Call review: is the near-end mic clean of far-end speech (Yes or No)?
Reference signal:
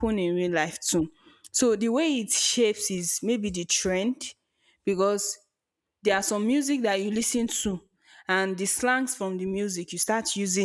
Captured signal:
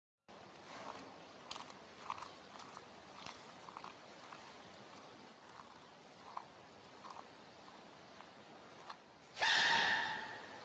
Yes